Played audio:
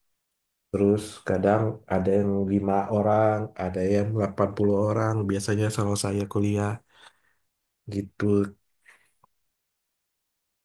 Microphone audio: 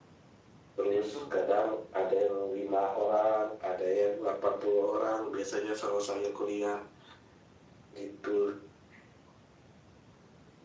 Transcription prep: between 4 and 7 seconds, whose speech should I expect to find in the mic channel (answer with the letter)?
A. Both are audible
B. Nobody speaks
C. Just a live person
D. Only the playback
D